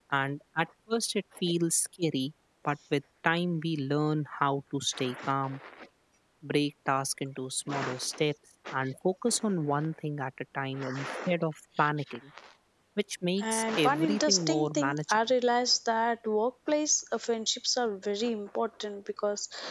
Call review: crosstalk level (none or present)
present